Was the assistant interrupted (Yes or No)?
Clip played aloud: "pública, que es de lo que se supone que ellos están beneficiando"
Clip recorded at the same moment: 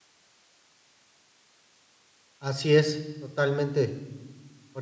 Yes